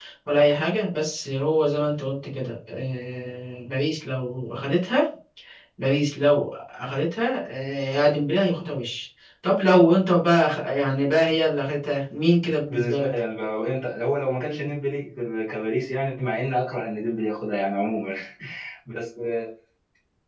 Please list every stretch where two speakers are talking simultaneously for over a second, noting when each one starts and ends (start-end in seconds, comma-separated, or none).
none